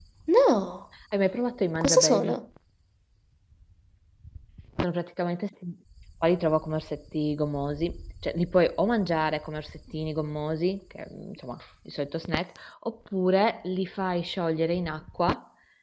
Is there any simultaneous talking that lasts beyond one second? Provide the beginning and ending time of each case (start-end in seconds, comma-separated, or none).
none